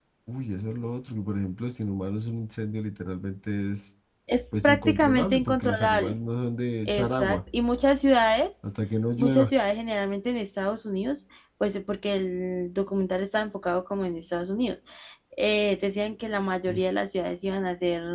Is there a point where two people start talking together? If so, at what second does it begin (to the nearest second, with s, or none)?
5 s